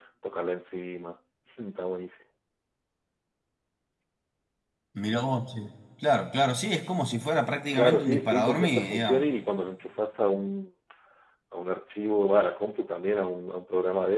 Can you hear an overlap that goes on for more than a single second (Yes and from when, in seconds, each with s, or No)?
Yes, from 7.7 s